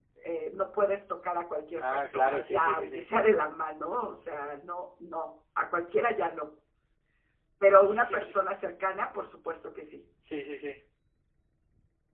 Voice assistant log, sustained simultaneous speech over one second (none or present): present